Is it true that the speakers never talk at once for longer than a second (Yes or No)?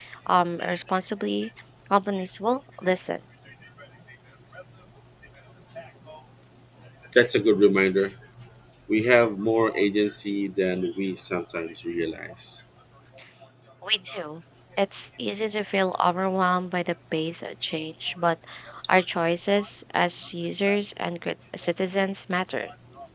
Yes